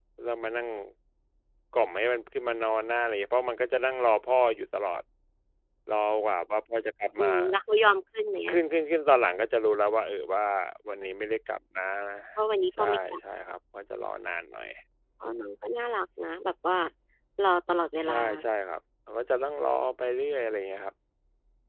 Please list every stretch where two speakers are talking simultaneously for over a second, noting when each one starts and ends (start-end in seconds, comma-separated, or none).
none